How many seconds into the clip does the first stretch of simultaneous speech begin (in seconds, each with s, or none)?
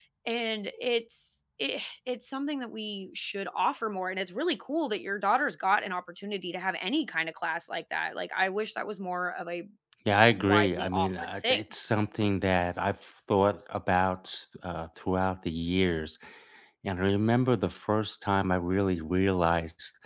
10.4 s